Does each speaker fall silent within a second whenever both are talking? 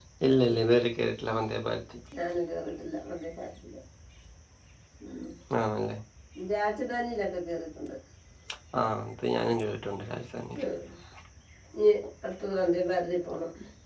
Yes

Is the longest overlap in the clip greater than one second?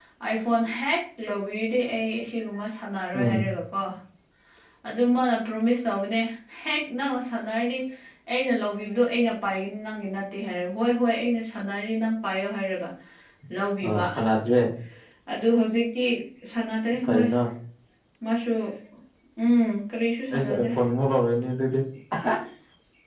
No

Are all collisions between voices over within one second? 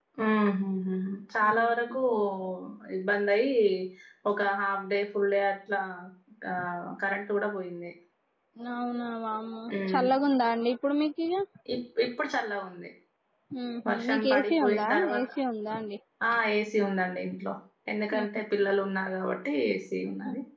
No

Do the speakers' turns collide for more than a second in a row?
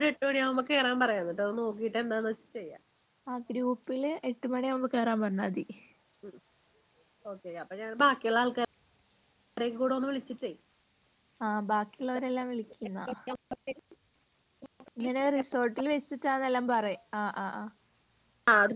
No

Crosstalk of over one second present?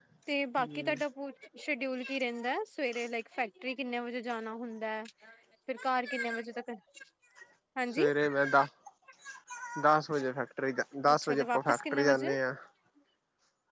Yes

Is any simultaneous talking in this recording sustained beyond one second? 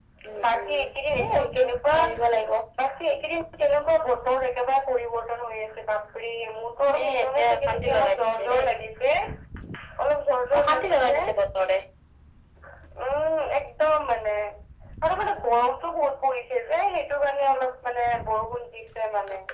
Yes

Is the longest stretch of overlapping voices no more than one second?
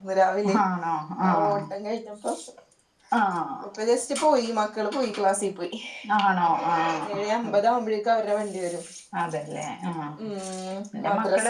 Yes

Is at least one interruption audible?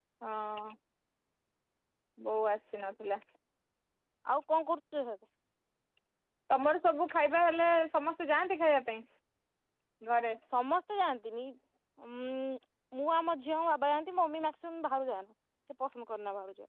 No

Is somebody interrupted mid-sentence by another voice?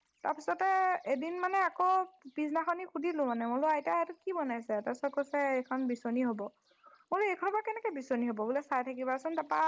No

